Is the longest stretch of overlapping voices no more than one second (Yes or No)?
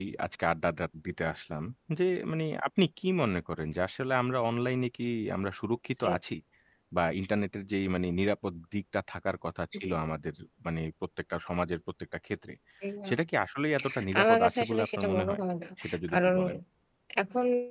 No